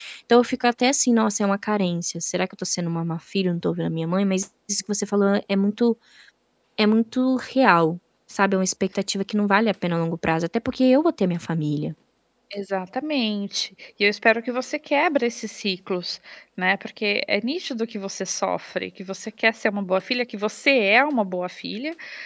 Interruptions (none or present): none